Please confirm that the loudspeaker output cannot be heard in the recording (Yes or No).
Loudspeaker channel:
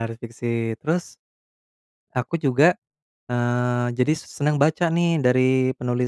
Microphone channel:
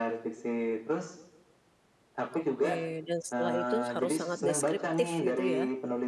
No